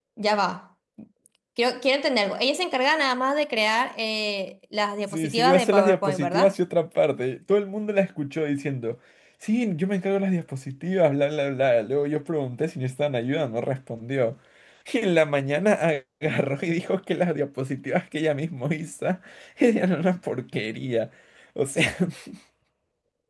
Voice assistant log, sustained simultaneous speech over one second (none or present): present